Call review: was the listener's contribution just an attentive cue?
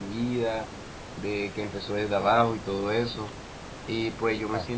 Yes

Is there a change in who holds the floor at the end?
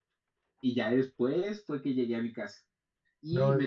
No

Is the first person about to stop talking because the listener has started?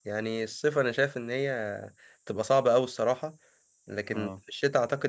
No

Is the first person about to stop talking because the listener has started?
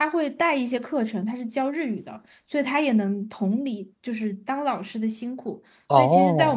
No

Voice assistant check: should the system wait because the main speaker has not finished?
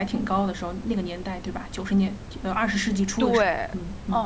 No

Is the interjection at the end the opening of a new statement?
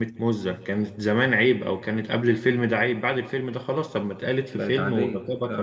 No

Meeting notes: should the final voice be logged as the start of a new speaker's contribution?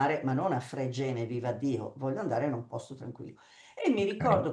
No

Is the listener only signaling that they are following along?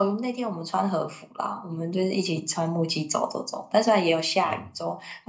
Yes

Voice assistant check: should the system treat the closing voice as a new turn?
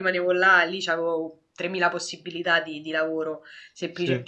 No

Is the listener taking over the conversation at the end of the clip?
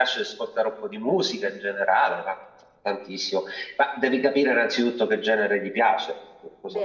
Yes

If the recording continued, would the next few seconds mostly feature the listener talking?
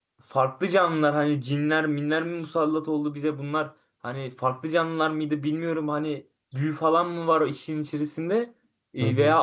No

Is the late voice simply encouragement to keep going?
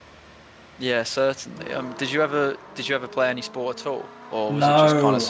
No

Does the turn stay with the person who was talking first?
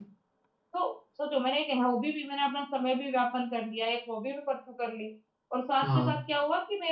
Yes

